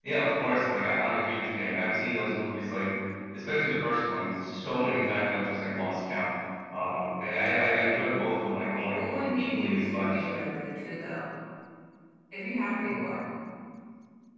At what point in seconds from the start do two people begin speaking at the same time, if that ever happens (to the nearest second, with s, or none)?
9 s